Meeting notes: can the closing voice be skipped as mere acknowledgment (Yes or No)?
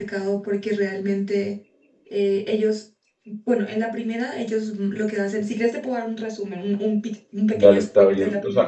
No